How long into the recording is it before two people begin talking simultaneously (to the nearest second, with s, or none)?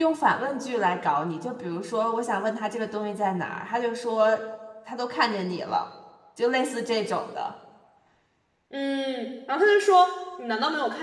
none